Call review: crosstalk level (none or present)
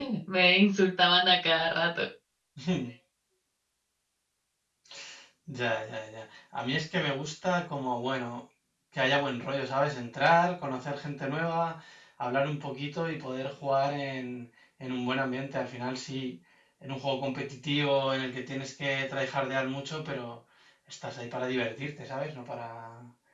none